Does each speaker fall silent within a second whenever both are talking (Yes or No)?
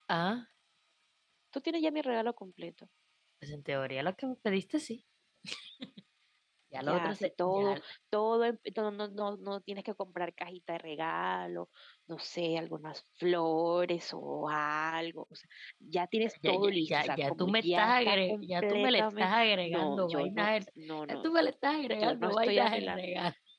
No